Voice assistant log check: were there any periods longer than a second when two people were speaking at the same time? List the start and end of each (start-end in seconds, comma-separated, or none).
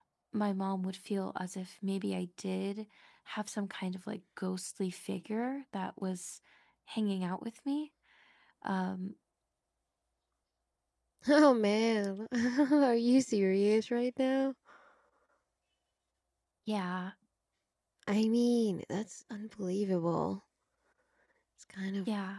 none